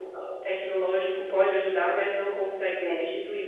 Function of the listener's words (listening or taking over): listening